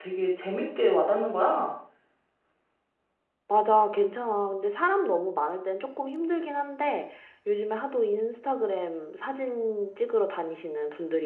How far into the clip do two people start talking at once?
none

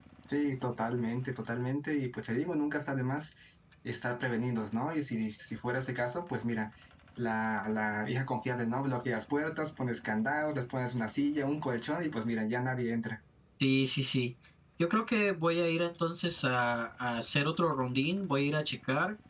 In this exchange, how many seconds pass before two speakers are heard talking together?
none

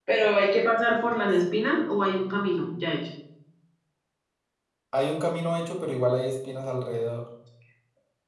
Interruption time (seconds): none

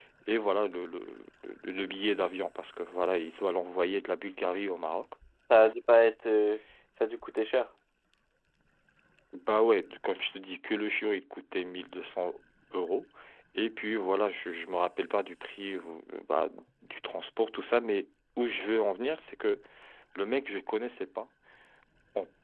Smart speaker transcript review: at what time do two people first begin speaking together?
none

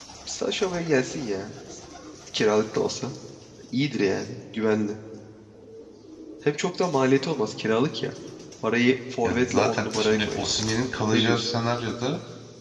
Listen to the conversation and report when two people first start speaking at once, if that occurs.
9.2 s

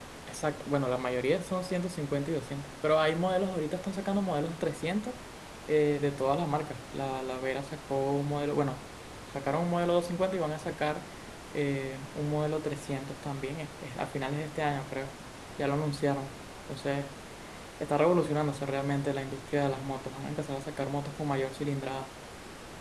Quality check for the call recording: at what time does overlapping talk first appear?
none

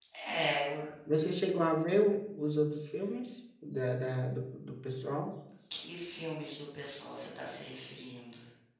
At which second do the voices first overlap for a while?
none

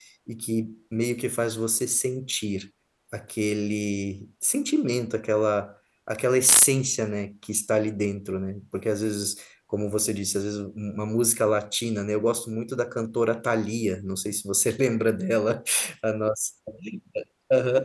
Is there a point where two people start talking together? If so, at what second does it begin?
none

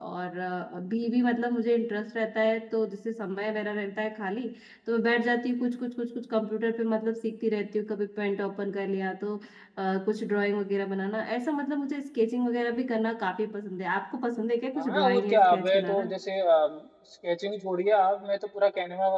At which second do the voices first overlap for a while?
14.8 s

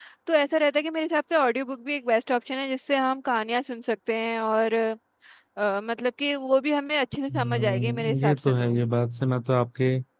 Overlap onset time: 7.3 s

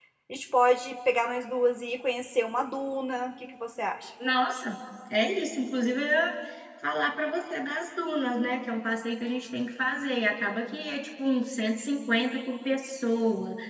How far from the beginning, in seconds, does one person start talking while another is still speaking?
none

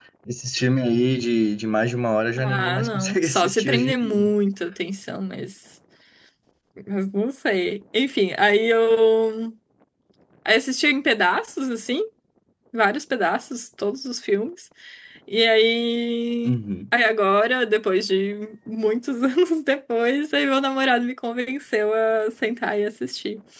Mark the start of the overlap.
2.4 s

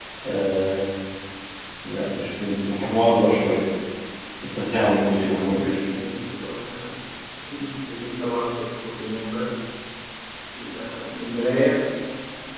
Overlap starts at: 4.6 s

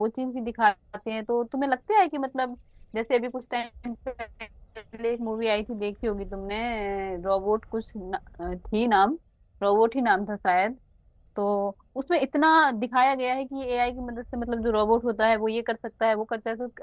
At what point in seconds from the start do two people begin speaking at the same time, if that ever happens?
none

